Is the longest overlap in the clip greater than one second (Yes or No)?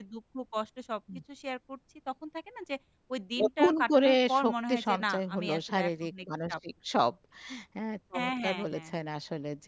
Yes